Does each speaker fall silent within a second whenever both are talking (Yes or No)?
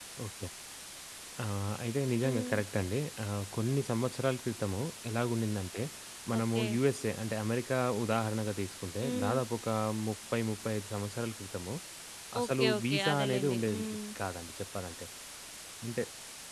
No